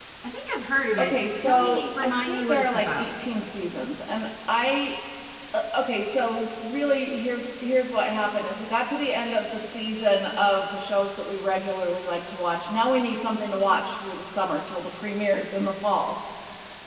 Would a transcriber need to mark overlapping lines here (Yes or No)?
Yes